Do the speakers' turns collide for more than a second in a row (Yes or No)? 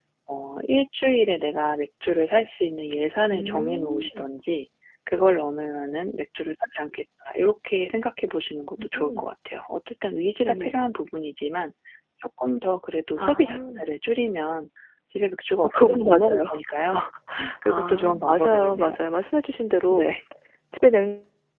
Yes